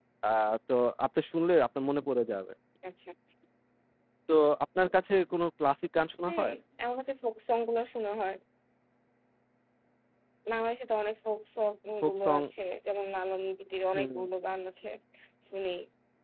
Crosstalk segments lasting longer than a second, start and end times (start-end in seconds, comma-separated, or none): none